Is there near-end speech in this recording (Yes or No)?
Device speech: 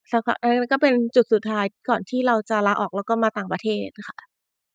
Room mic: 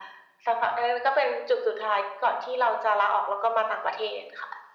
No